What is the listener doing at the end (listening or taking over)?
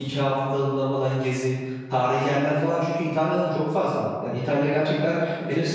listening